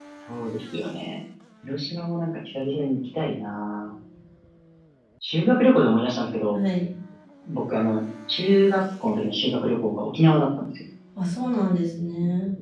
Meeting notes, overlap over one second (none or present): none